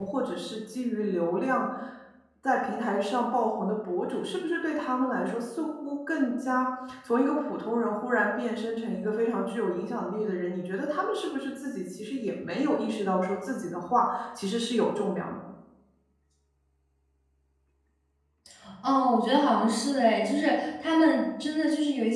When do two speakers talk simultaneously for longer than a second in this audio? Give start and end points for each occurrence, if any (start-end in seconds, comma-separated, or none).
none